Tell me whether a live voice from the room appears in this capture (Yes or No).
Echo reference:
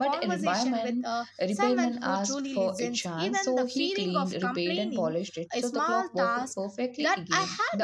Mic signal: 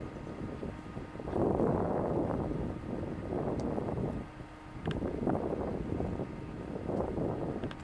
No